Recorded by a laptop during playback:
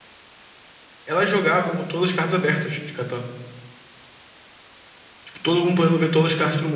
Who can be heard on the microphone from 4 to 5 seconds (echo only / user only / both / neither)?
neither